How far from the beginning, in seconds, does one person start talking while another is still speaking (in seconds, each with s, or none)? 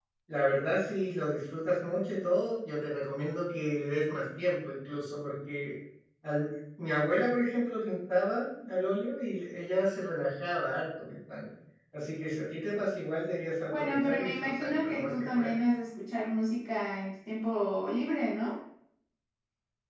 13.7 s